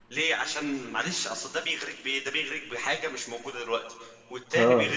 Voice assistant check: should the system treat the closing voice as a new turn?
Yes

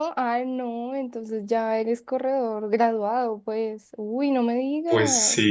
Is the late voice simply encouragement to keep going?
No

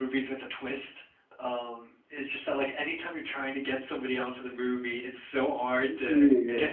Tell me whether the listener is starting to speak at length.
No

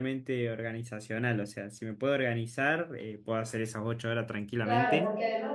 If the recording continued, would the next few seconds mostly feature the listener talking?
Yes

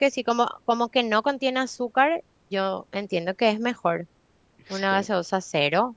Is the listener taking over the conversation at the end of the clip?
No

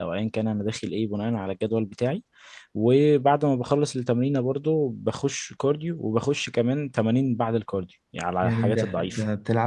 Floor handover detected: Yes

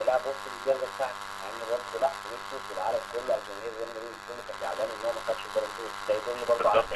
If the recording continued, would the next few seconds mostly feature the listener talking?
Yes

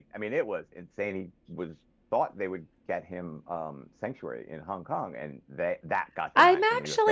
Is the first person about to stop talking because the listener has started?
Yes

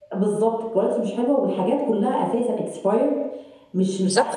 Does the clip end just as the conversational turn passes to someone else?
Yes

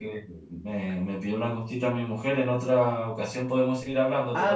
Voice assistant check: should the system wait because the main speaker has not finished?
No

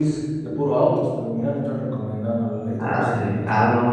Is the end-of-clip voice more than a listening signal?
Yes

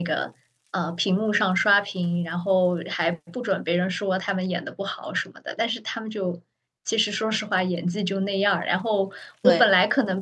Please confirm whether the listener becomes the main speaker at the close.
No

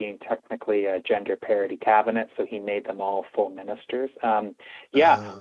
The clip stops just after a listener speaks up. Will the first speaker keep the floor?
Yes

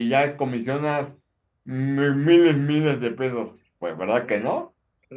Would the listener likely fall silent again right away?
No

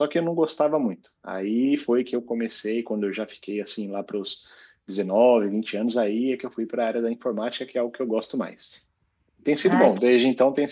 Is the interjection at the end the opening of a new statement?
No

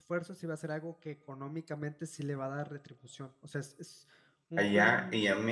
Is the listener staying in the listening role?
No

